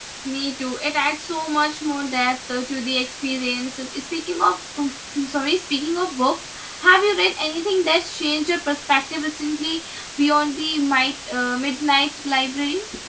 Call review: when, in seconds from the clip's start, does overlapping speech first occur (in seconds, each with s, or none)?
none